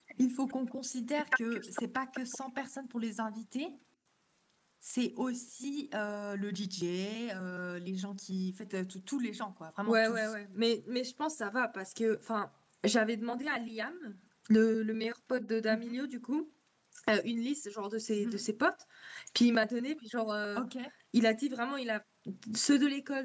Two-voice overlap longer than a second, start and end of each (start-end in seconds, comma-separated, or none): none